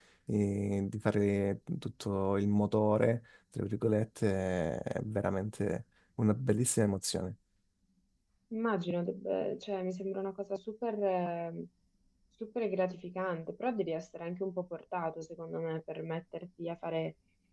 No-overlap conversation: Yes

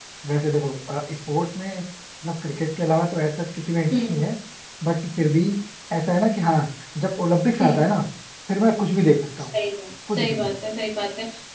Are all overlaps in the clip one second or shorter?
Yes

